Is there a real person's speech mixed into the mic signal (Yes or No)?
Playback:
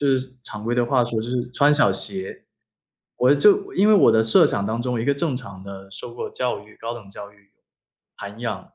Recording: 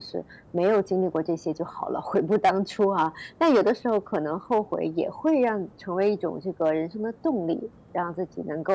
Yes